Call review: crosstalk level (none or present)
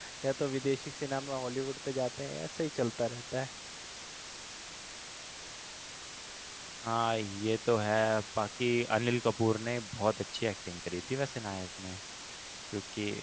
none